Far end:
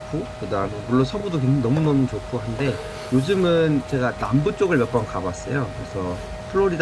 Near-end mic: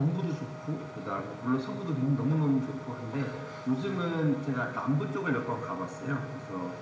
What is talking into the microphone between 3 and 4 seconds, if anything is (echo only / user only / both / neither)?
echo only